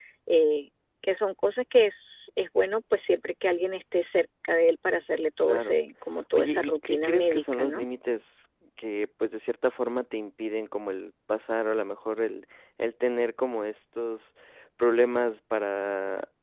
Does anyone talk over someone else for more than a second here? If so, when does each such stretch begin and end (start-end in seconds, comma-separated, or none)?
6.3-7.8